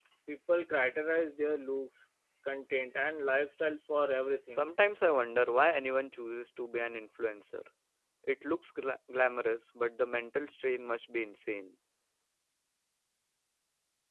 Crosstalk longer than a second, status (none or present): none